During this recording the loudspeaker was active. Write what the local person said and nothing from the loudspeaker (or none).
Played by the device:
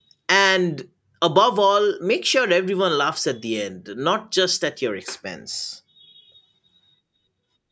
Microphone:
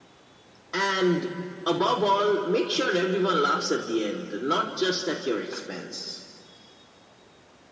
none